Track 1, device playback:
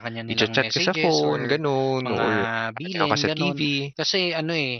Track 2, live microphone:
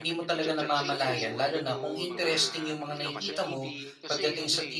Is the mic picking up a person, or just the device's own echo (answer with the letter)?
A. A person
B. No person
A